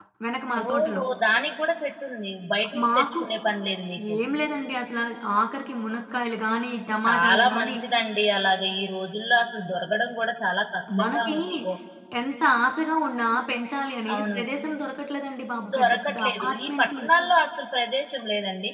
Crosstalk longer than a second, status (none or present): present